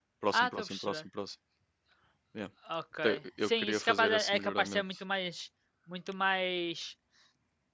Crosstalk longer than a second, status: present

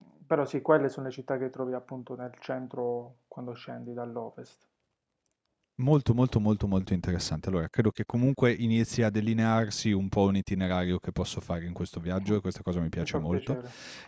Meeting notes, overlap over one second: none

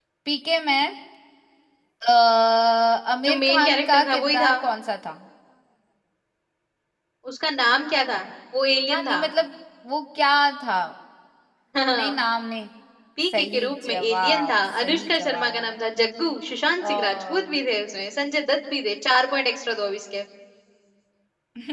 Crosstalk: present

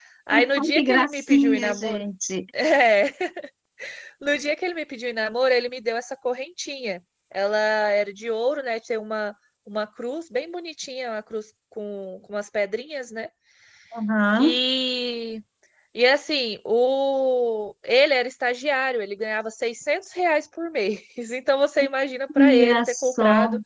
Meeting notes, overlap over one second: present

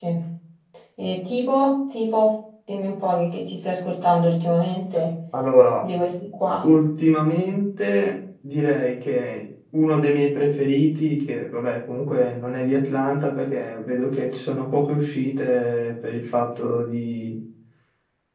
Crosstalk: none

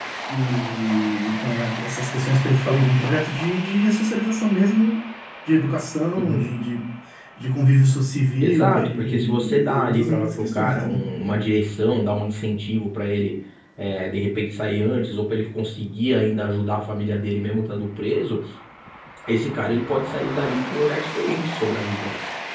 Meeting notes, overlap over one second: present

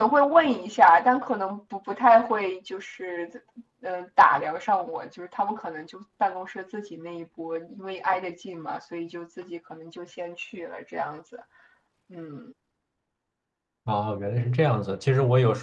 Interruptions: none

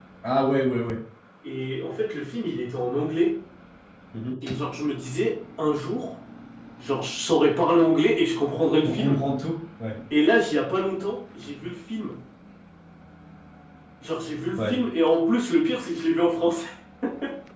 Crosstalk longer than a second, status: none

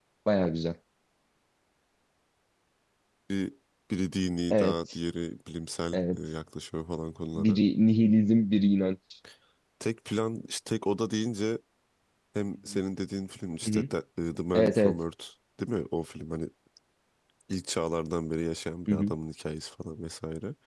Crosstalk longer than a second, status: none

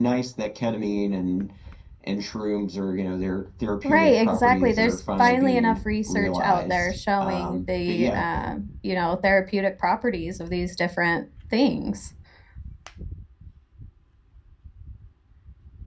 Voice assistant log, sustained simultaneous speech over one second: present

